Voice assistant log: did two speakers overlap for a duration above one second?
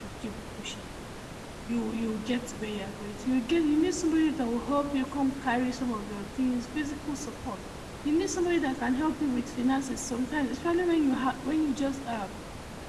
No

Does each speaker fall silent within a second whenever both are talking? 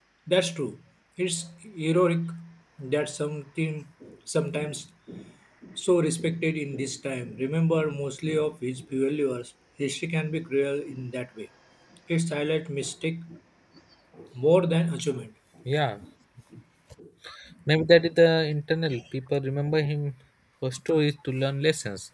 Yes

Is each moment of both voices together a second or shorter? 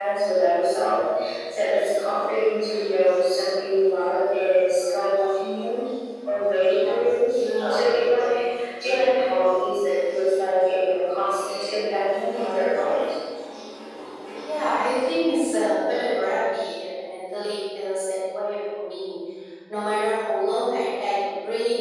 Yes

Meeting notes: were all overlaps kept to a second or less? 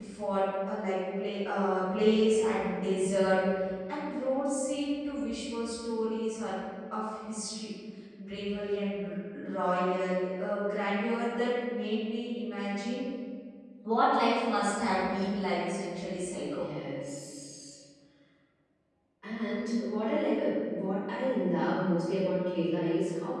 Yes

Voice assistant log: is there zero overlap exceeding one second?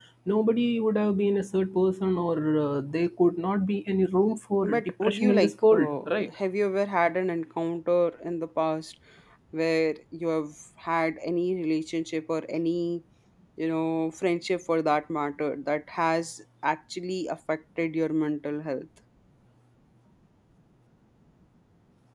No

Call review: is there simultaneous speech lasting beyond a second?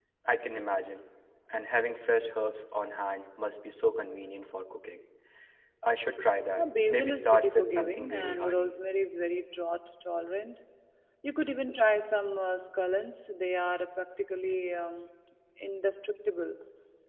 Yes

